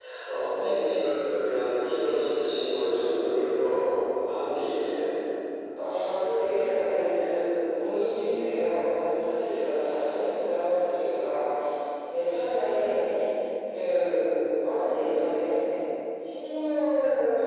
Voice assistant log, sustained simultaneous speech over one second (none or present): none